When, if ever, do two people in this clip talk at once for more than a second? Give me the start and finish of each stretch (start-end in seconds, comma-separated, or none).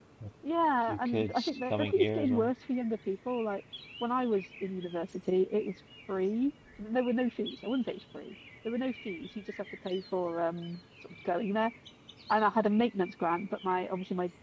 0.9-2.5